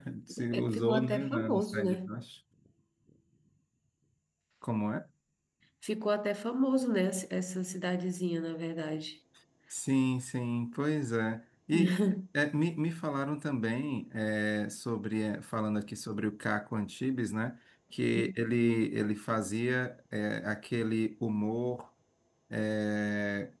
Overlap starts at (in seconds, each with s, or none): 0.5 s